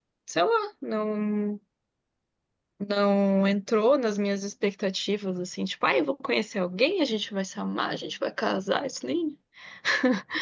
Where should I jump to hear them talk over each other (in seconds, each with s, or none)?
none